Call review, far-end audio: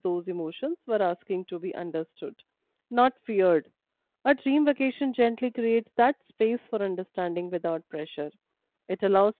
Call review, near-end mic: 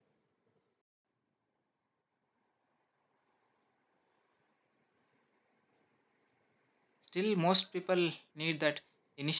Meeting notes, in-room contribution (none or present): present